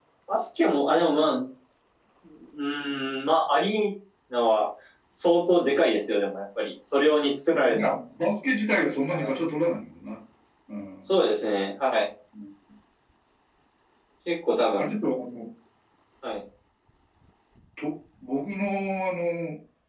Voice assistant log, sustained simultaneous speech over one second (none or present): none